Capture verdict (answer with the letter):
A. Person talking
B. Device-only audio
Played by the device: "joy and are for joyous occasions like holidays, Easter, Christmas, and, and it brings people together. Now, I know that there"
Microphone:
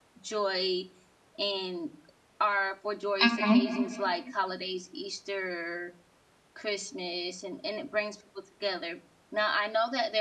A